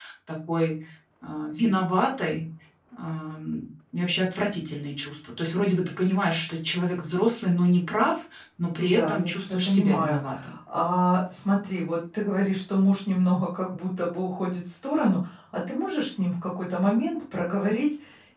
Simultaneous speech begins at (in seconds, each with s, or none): 8.8 s